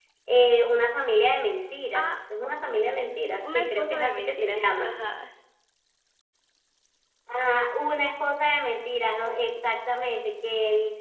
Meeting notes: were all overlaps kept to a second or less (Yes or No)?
No